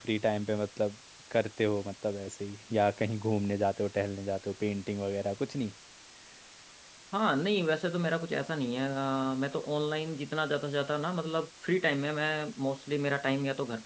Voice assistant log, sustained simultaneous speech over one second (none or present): none